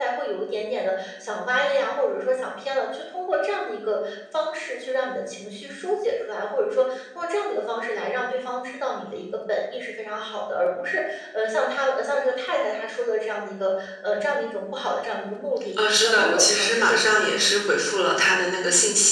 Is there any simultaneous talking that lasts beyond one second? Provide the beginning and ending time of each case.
15.8-17.5

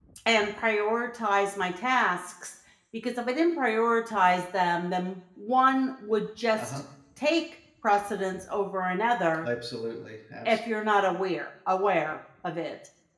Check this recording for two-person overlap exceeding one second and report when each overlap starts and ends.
none

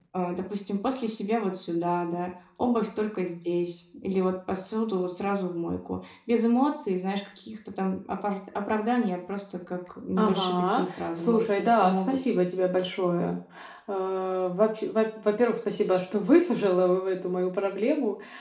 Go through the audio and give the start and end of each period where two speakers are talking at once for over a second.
10.2-12.2

